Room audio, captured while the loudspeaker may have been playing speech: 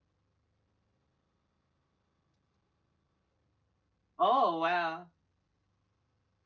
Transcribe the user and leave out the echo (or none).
Oh, wow.